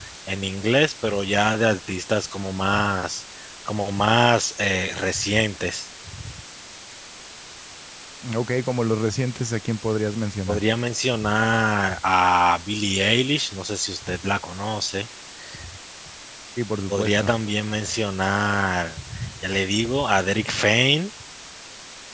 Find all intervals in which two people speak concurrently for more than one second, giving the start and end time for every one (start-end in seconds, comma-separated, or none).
none